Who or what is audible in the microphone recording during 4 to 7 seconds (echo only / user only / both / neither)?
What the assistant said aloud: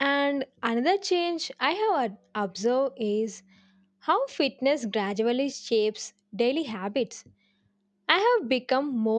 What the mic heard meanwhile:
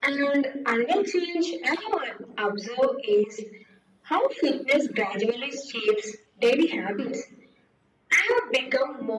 echo only